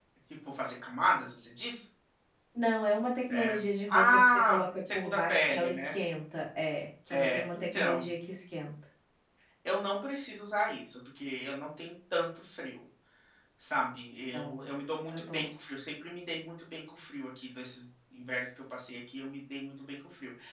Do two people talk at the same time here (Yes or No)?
Yes